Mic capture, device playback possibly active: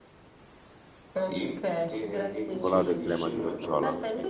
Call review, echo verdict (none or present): present